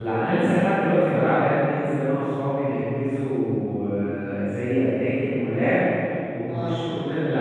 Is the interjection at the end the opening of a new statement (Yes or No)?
No